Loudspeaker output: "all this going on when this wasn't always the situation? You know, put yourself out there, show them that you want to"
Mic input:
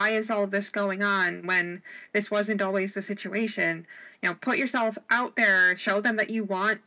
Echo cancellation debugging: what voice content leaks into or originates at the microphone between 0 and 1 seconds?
echo only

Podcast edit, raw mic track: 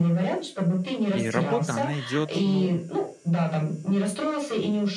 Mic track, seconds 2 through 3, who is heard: both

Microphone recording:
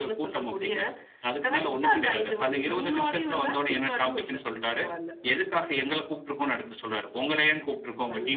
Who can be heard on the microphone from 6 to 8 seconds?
echo only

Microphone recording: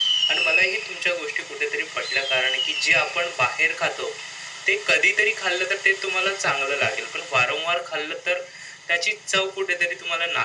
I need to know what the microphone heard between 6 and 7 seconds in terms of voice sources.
echo only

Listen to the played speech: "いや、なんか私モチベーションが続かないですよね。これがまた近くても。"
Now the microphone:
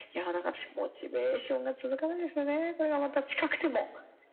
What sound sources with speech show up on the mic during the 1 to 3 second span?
echo only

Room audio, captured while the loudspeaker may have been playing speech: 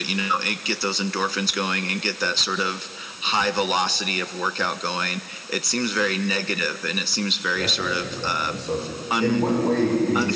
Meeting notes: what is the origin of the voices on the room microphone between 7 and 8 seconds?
both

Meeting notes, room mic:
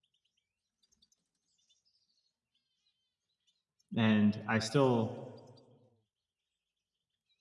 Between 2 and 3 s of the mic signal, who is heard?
neither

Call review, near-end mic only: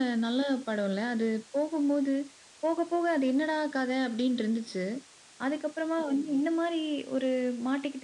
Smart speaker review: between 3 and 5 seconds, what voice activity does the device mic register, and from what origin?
echo only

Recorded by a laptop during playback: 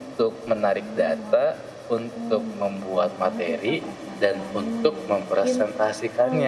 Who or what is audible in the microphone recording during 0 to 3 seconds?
both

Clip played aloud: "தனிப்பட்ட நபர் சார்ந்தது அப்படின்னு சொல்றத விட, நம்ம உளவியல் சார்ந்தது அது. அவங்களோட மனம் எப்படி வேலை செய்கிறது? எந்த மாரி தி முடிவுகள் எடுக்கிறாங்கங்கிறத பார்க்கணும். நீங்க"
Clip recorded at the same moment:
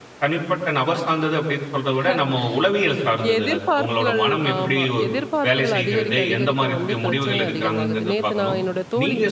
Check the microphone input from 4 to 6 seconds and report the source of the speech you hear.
both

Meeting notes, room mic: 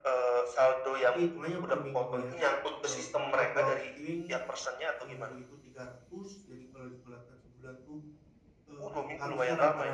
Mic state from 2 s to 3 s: both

